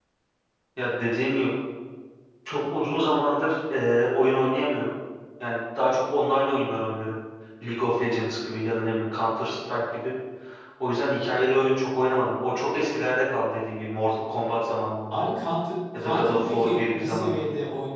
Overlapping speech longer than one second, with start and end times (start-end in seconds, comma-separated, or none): 16.0-17.4